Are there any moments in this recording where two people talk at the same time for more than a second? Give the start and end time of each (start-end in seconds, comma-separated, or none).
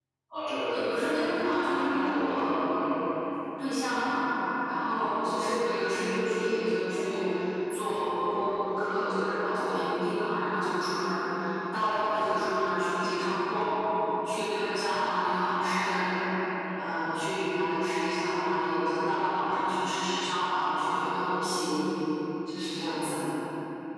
0.7-2.6